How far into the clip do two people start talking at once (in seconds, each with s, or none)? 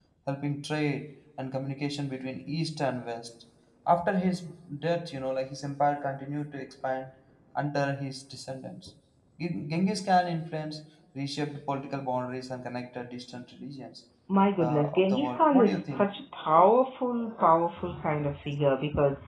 14.6 s